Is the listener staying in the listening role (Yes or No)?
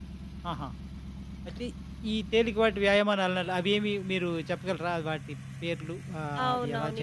No